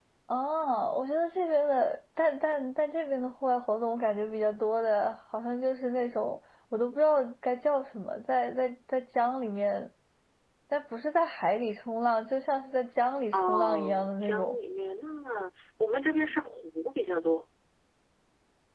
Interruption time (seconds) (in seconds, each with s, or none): 13.3 s